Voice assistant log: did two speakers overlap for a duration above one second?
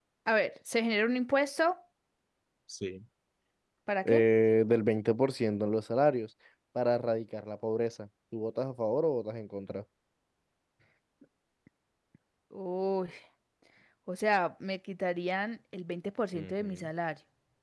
No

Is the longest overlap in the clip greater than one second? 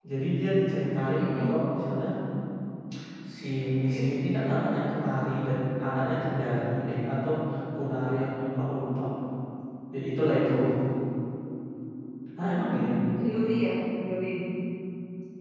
No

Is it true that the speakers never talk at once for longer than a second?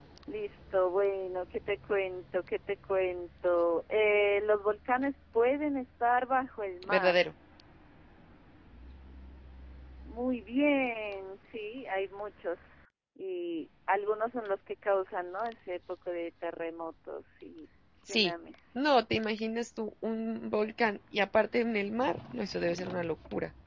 Yes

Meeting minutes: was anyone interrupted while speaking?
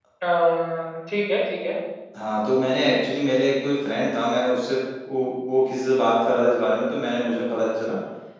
No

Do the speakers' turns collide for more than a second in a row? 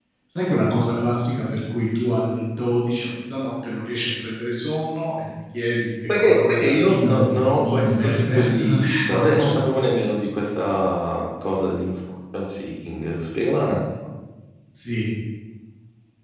Yes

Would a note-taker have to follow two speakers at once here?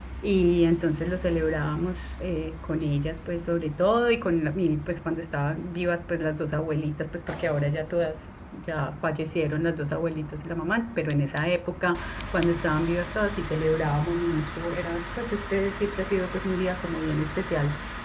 No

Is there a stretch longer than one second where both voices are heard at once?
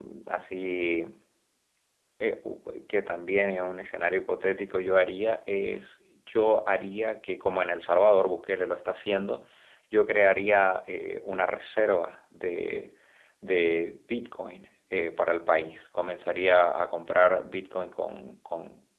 No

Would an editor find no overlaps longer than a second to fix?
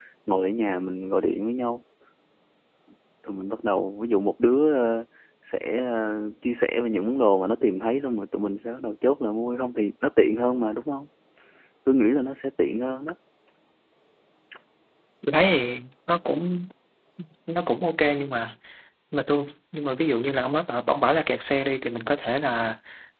Yes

